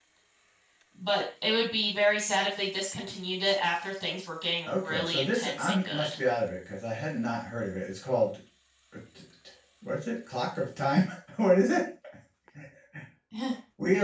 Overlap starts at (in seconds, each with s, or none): 4.7 s